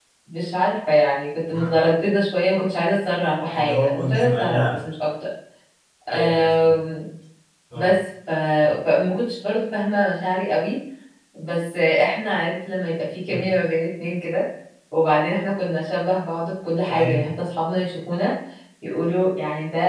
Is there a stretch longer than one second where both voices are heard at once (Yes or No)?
Yes